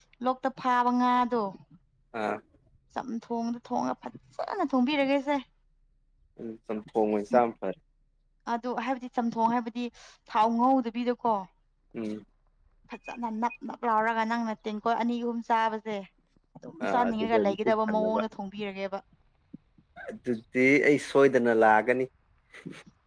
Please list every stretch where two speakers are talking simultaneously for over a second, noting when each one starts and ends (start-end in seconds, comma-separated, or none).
16.8-18.1